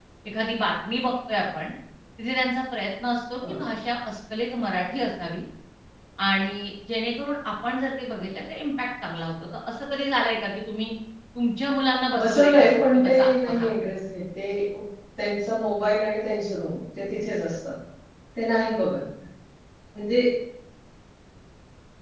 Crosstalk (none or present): present